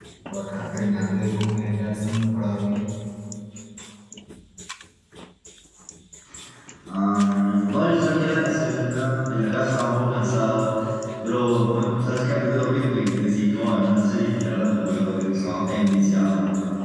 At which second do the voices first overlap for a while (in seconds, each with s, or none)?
15.2 s